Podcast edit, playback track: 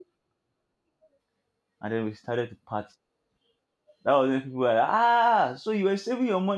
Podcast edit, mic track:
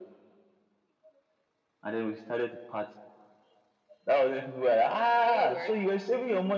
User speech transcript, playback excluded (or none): You would, right?